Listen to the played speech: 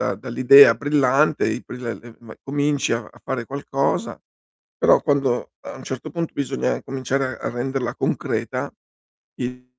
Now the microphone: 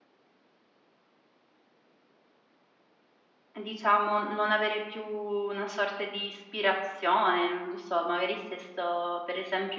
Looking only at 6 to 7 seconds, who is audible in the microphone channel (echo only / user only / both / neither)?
user only